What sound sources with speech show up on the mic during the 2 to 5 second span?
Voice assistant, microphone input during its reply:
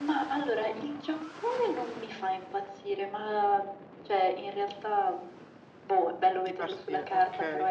echo only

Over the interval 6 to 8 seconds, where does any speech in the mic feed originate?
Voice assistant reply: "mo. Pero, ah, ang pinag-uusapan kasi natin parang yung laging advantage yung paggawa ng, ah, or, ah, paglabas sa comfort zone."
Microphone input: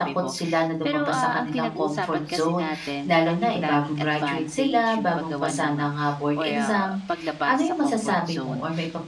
both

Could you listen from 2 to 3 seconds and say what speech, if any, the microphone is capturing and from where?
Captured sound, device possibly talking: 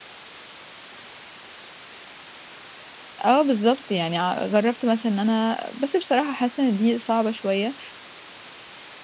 neither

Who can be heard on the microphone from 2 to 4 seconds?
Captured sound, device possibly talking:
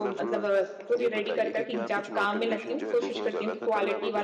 both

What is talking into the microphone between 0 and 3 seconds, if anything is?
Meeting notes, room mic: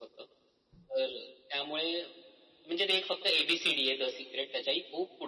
echo only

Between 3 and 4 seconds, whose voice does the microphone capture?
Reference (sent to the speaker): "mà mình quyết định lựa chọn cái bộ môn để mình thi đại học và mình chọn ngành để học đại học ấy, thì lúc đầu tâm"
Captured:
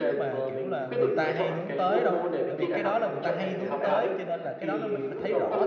both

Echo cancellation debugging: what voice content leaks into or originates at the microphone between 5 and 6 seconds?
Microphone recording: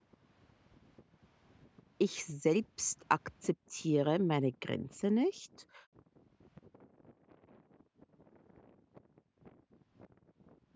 user only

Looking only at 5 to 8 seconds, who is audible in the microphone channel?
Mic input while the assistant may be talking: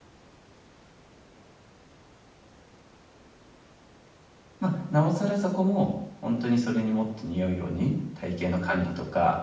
user only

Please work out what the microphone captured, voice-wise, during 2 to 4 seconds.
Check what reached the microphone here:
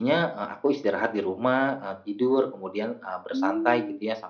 both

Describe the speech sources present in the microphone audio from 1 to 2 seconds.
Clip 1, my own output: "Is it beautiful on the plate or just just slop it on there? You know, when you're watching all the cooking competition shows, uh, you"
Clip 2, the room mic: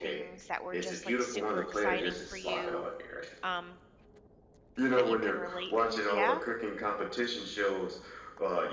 both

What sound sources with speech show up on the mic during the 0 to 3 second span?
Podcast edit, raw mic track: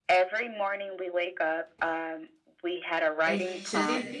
echo only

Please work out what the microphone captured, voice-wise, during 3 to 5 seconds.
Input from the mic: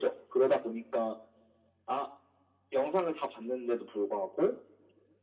echo only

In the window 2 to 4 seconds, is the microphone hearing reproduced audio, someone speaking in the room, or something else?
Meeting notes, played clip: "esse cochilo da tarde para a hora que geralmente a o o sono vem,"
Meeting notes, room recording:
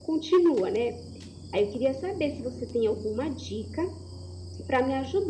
user only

